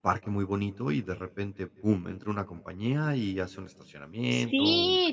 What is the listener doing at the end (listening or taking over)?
taking over